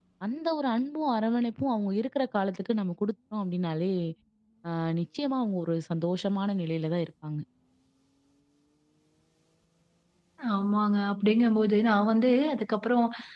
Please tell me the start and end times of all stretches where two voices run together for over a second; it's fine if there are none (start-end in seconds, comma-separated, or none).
none